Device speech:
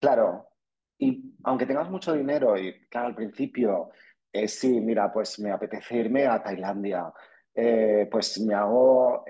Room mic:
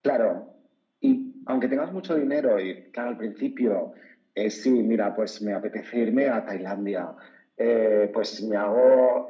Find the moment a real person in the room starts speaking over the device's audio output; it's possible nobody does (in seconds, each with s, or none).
none